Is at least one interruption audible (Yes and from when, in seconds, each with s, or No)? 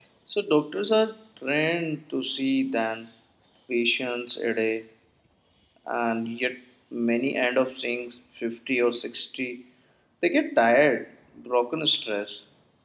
No